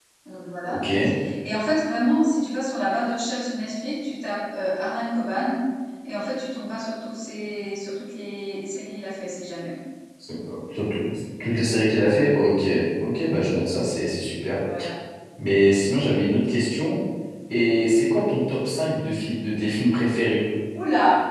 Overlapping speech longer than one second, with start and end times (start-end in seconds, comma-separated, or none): none